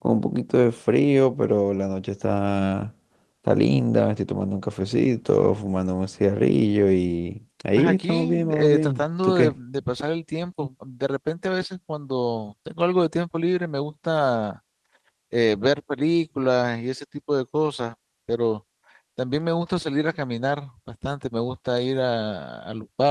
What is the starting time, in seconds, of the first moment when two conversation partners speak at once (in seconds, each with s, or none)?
7.8 s